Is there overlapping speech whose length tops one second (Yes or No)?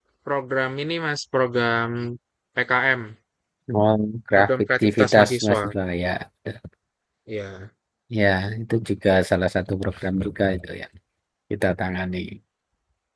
Yes